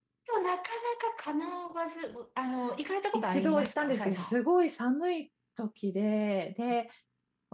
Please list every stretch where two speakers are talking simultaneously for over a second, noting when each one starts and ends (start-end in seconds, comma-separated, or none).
3.1-4.3